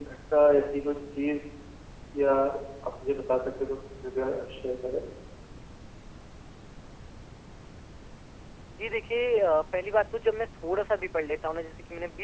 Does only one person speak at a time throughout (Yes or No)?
Yes